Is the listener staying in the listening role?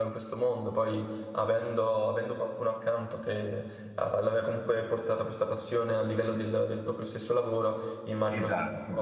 No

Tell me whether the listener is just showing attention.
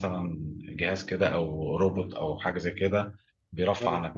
Yes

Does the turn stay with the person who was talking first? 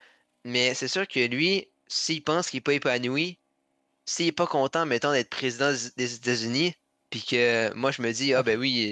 Yes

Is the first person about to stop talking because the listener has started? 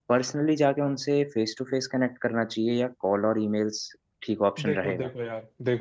Yes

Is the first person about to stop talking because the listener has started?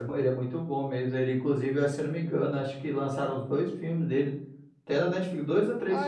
Yes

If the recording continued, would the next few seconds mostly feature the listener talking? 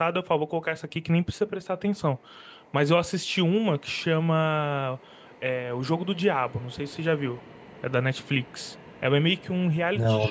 No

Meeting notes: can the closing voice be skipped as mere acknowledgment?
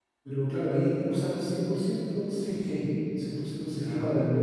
Yes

